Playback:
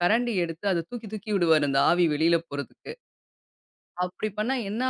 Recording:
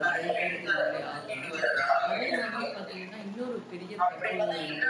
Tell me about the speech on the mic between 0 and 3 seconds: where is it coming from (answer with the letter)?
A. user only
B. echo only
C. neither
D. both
D